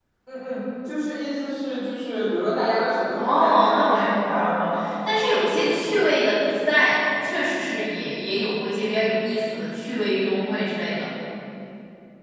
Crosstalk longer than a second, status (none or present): present